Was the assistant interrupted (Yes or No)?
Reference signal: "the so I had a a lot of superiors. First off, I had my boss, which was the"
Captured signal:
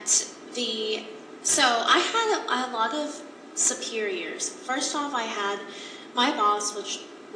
No